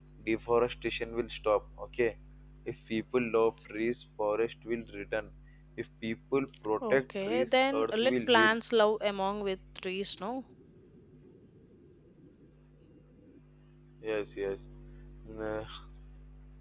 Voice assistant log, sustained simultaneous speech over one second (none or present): present